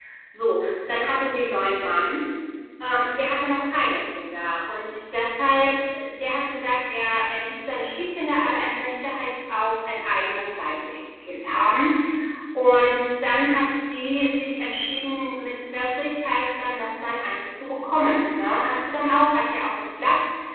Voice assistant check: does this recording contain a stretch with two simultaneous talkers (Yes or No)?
No